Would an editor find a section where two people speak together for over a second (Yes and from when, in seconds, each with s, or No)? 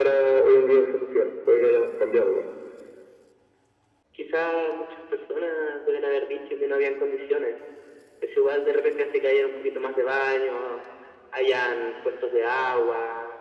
No